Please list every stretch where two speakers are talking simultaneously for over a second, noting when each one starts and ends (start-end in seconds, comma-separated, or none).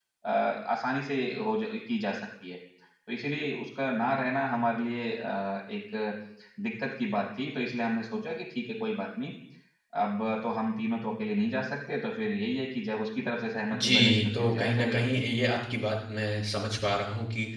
13.7-15.0